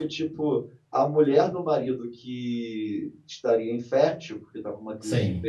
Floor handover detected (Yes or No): No